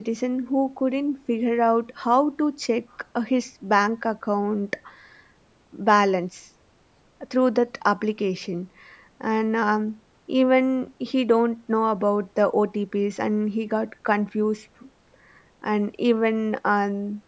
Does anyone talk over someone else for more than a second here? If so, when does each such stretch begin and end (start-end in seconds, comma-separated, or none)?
none